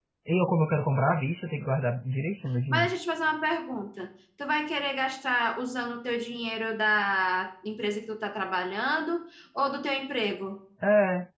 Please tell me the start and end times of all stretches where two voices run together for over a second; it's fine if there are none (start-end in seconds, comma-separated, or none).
none